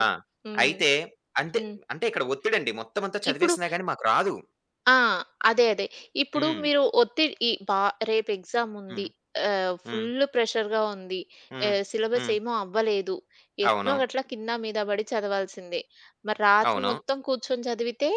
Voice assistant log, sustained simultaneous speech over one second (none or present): none